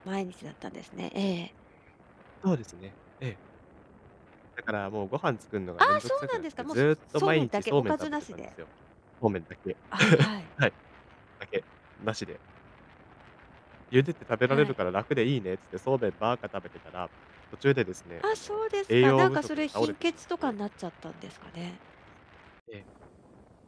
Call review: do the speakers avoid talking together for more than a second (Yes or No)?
No